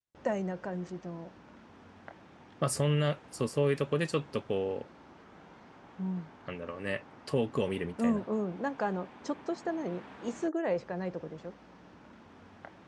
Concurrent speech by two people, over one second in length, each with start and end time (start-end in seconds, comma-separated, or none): none